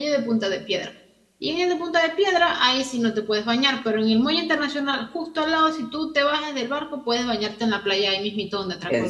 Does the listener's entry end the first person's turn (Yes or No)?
Yes